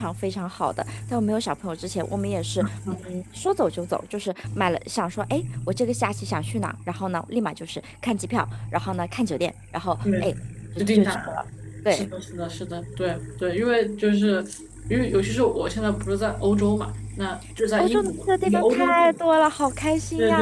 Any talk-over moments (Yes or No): Yes